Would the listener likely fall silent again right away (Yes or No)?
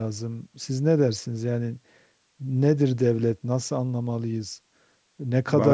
Yes